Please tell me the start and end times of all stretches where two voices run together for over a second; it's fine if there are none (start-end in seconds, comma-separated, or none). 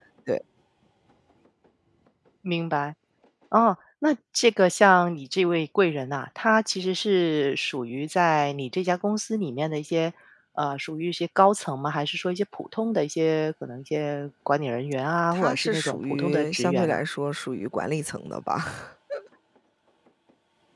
15.3-17.0